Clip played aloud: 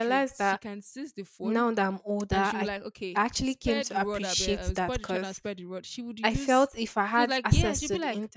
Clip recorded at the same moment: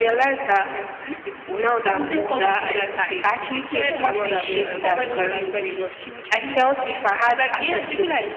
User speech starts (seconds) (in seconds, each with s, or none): 1.9 s